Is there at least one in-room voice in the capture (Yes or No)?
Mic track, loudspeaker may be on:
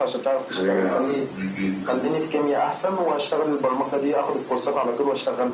Yes